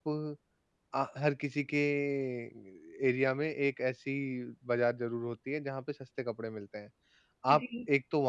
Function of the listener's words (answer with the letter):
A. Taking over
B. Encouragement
B